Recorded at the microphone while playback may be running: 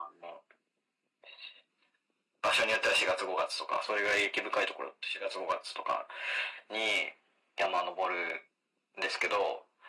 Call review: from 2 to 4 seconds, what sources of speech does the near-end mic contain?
echo only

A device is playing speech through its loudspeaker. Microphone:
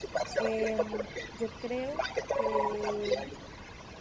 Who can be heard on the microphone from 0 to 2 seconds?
both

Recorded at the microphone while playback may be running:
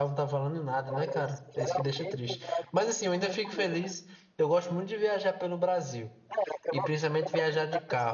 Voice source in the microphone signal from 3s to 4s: both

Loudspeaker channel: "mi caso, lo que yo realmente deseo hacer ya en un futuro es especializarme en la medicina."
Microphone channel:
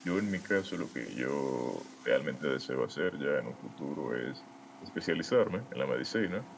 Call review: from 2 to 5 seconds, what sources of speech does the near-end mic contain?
echo only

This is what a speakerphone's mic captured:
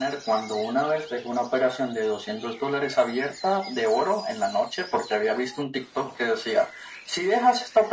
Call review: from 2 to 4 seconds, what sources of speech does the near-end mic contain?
echo only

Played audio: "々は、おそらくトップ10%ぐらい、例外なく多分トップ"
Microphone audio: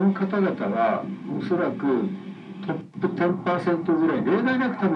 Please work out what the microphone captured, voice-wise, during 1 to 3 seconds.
echo only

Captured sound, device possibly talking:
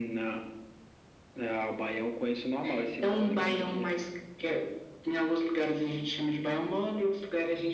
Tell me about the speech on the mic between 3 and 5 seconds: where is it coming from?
echo only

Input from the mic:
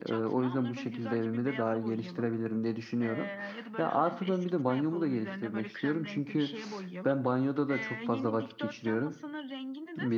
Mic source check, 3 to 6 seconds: both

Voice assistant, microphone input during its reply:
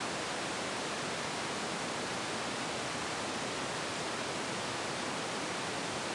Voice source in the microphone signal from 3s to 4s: neither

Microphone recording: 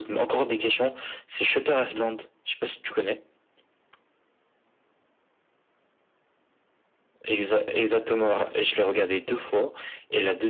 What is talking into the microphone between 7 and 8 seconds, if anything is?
echo only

